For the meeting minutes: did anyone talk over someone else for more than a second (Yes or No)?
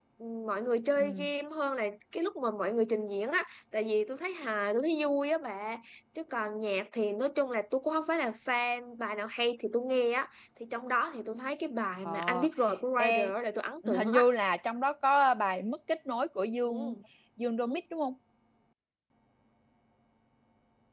No